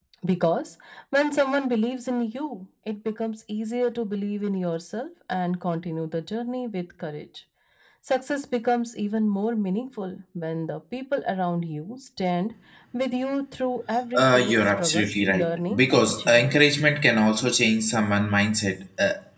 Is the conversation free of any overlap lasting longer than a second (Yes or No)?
No